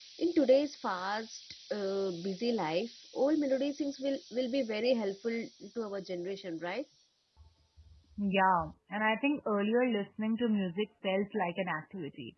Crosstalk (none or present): none